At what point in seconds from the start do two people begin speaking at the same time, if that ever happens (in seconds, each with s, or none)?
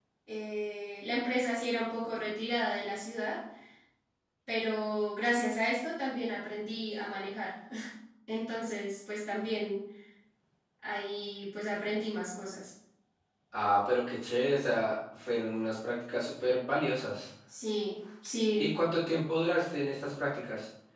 none